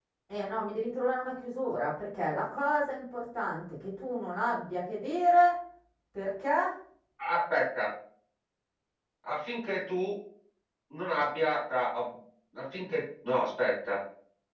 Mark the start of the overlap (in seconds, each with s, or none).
none